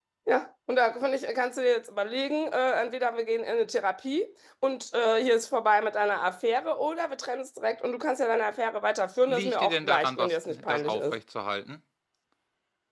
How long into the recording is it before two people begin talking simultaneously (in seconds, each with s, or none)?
9.3 s